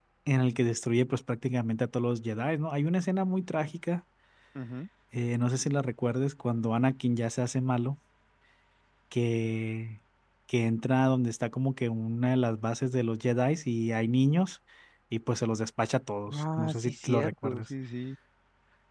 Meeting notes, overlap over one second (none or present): present